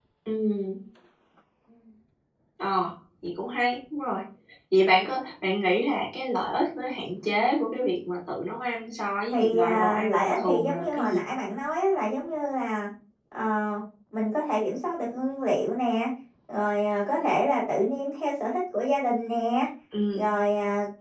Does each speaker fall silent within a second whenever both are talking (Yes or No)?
No